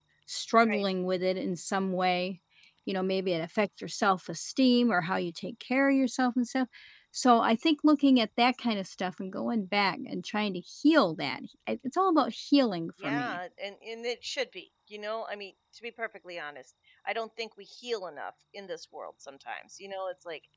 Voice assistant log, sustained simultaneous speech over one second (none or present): none